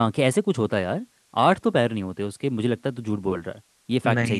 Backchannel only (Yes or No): No